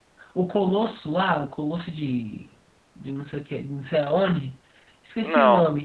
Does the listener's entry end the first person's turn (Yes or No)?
No